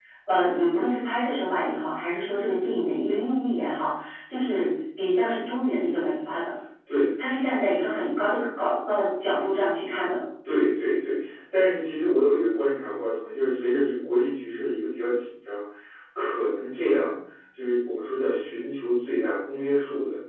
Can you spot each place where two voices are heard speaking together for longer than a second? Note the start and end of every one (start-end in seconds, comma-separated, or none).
none